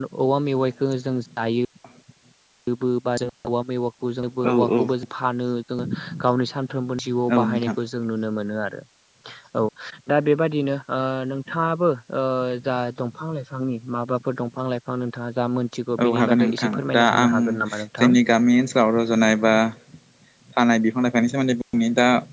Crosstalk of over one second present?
Yes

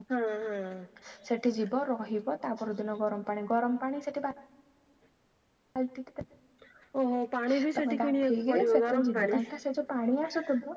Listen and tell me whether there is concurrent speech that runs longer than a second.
Yes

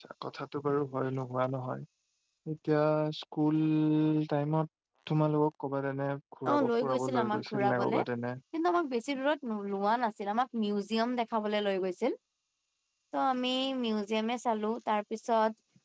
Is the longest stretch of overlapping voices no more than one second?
No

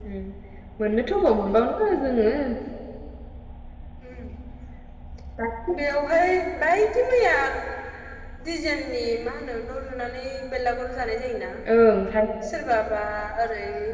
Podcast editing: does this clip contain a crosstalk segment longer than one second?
No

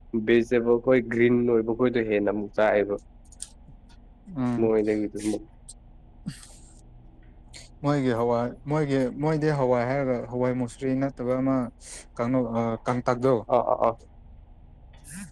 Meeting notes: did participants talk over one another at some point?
No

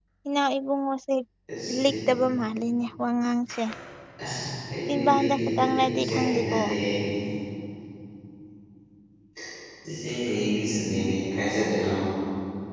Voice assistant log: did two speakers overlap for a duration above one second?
Yes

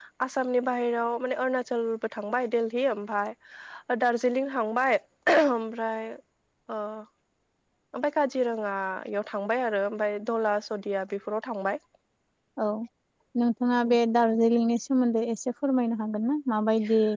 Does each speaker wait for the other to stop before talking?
Yes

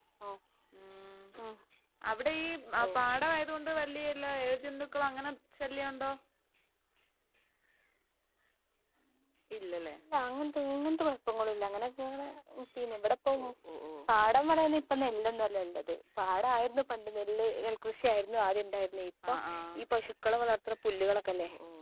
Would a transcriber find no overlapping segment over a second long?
Yes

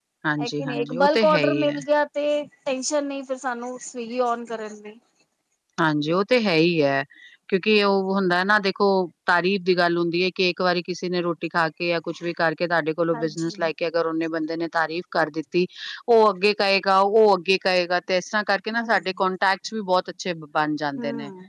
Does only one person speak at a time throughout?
No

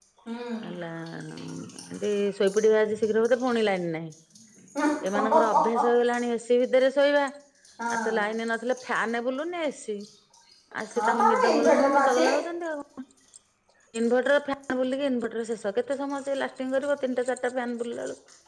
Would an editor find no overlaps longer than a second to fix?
No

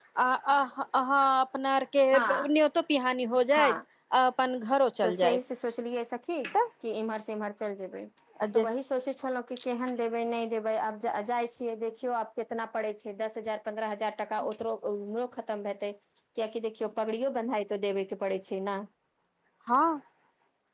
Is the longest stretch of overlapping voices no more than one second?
Yes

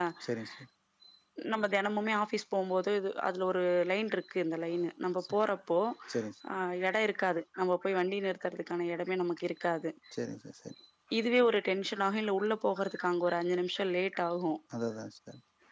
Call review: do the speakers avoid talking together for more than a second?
Yes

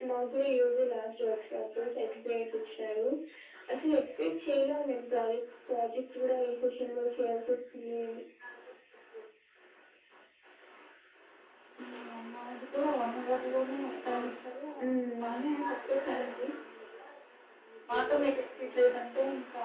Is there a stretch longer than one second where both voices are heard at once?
No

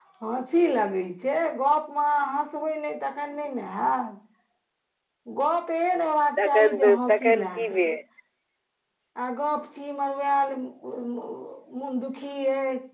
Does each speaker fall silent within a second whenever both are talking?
No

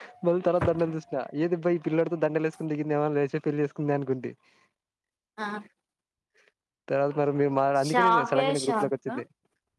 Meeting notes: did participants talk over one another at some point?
Yes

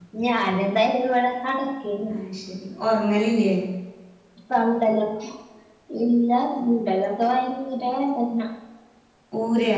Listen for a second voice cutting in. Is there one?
No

